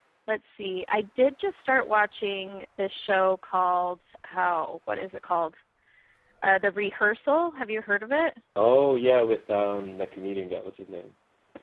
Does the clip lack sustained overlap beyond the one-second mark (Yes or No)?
Yes